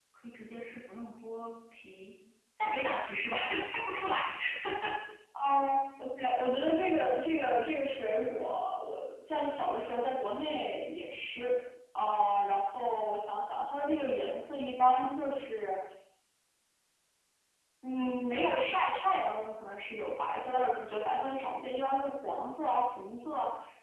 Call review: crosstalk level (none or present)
none